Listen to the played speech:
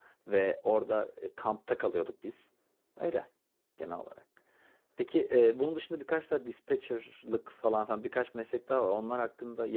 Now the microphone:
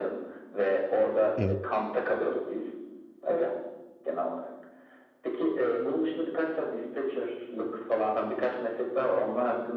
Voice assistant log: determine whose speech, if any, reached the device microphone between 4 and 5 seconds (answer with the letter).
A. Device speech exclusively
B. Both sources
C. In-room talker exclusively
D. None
A